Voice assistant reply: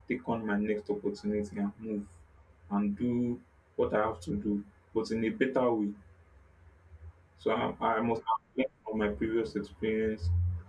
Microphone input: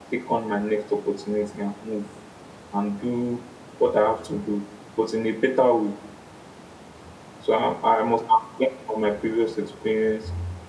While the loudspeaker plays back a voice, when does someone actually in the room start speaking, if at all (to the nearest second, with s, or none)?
none